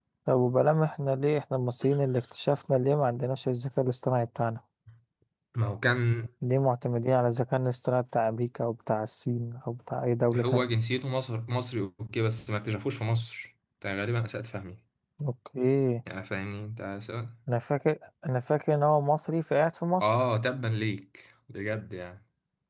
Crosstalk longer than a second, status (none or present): none